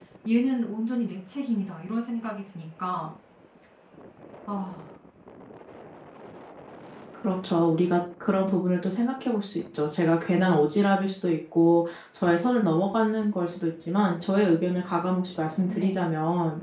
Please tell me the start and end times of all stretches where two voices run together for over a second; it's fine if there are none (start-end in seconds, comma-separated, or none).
none